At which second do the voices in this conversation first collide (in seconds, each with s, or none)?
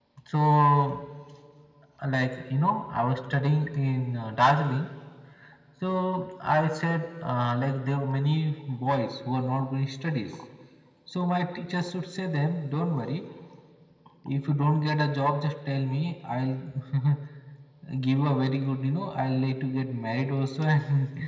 none